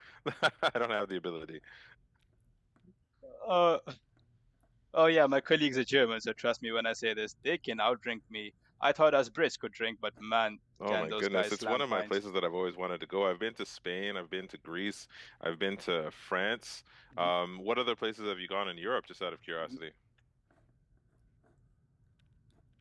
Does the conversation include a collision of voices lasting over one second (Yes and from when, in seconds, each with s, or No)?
Yes, from 10.8 s